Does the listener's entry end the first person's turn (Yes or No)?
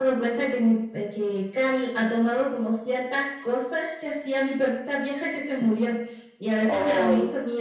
No